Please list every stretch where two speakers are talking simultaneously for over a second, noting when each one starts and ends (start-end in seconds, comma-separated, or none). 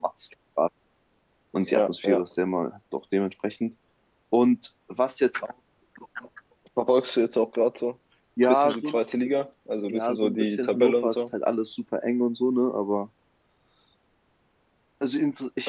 9.9-11.2